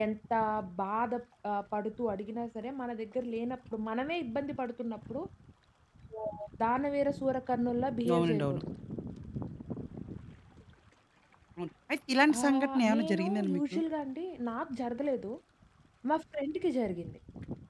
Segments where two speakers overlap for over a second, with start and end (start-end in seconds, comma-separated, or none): 12.4-13.8